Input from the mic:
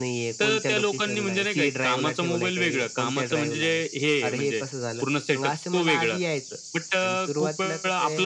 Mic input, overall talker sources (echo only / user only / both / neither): echo only